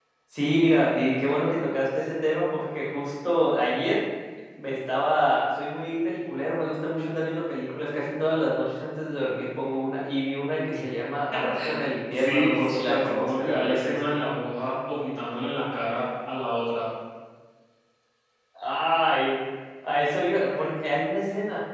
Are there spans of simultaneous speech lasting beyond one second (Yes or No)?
Yes